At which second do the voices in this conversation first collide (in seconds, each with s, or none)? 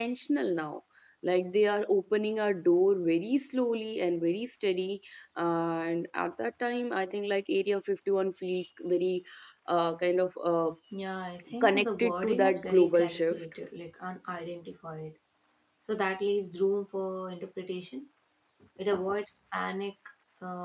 11.6 s